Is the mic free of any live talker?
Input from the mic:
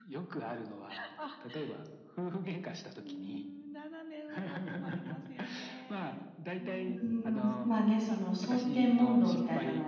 No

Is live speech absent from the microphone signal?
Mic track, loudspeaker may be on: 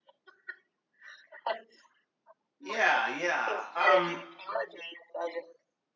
No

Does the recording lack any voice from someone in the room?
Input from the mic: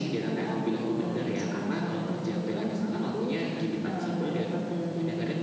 No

